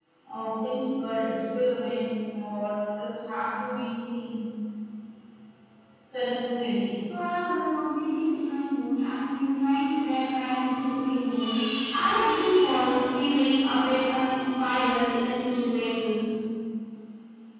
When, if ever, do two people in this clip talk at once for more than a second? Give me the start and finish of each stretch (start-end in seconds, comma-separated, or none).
none